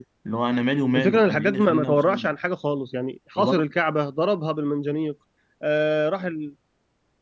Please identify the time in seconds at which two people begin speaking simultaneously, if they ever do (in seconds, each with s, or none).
0.9 s